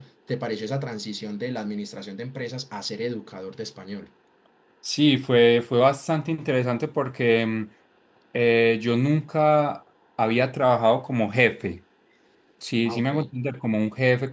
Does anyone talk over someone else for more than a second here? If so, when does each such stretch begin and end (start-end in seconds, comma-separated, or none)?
none